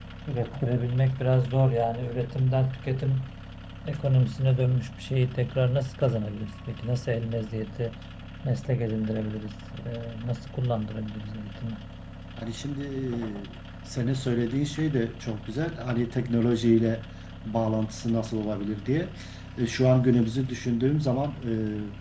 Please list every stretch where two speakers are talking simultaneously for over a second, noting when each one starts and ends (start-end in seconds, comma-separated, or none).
none